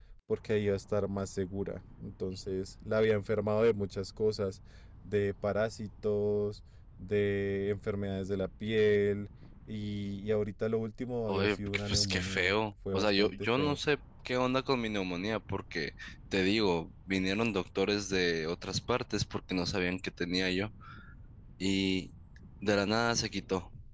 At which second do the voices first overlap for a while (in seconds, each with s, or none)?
11.3 s